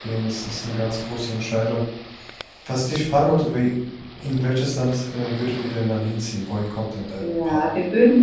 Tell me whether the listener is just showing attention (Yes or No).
No